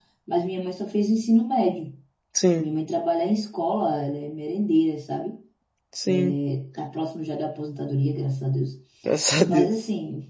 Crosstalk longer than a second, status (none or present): none